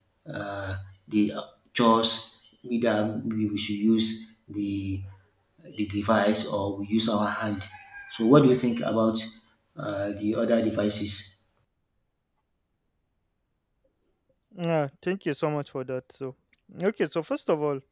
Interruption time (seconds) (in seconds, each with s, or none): none